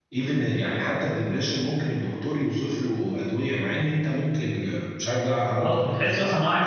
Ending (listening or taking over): taking over